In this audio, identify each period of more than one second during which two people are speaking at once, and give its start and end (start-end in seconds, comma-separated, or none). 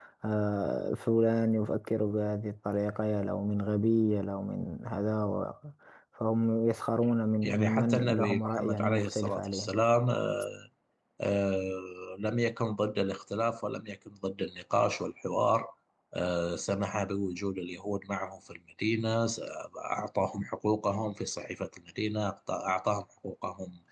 7.4-9.8